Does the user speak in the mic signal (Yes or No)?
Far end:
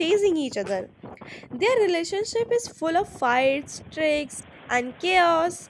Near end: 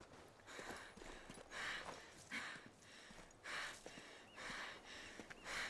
No